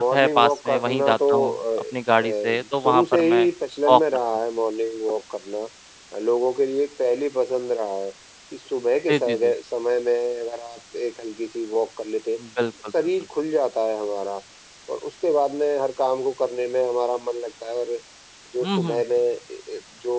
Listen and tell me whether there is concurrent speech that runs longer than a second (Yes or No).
Yes